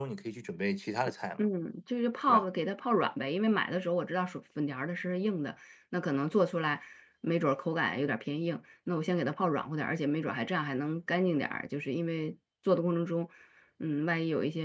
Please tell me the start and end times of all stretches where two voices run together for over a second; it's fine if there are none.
none

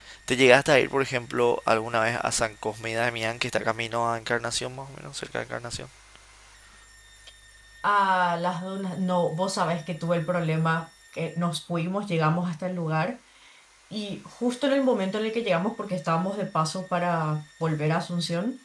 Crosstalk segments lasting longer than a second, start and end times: none

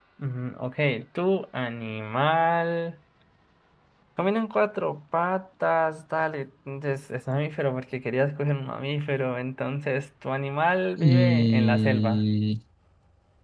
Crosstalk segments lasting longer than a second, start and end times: 11.0-12.2

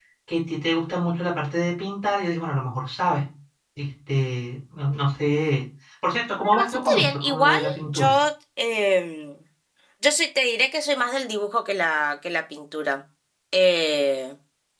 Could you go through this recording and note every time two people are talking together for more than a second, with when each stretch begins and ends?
6.4-8.1

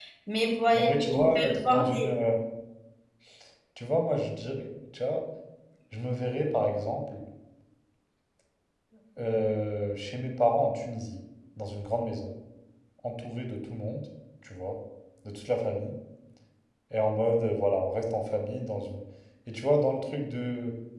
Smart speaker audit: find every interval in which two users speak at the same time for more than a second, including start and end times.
0.7-2.1

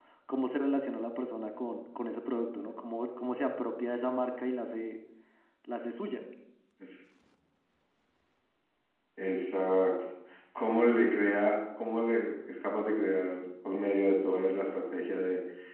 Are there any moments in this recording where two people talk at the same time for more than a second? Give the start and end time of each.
none

